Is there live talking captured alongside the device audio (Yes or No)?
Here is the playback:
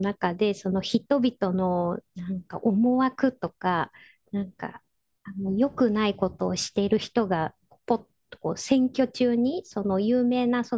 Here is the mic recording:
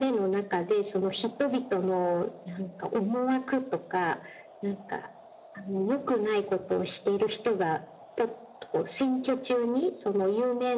No